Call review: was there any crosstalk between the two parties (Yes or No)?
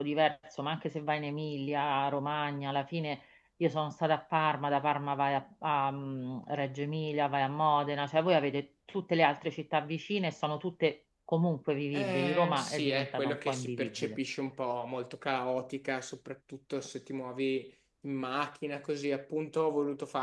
Yes